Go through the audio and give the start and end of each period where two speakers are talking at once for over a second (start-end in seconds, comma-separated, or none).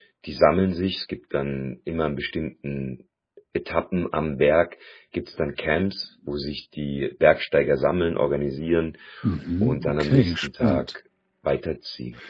9.6-10.8